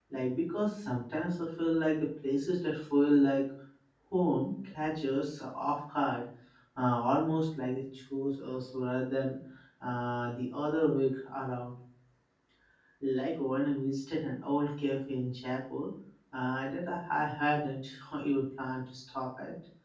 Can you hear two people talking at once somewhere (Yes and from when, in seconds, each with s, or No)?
No